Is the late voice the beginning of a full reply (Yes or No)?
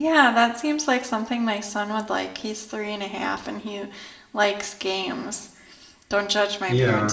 No